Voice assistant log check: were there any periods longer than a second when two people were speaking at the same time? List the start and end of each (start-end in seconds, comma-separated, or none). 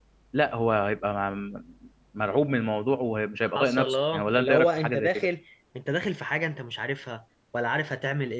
3.4-5.3